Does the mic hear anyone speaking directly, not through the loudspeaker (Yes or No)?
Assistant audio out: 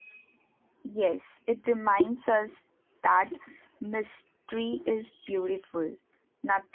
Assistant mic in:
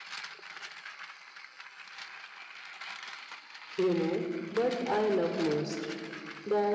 Yes